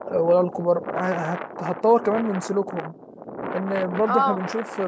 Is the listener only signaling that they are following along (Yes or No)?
Yes